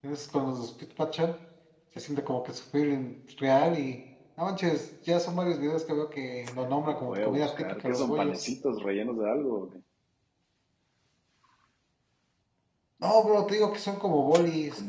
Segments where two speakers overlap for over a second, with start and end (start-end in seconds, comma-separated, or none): 6.9-8.4